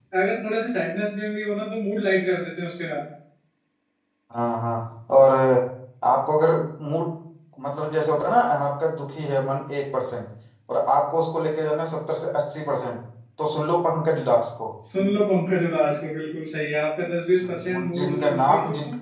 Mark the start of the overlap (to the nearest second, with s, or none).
17 s